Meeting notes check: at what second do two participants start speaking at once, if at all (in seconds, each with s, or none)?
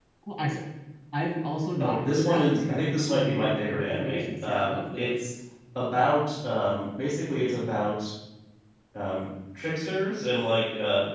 1.8 s